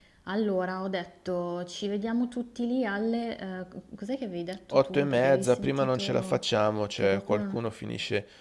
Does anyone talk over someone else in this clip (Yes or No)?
Yes